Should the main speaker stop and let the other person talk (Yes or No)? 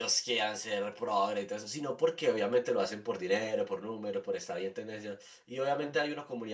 No